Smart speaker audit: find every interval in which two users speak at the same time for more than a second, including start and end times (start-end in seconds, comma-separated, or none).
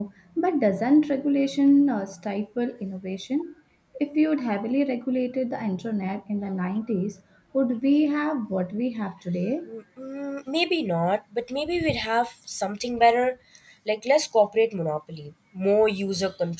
none